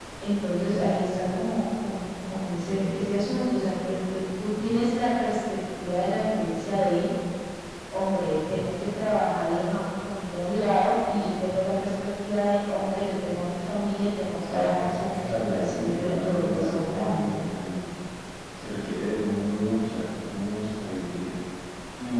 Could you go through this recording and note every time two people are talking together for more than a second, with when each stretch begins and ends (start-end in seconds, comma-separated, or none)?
14.5-17.2